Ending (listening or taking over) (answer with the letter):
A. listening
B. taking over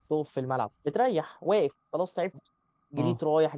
A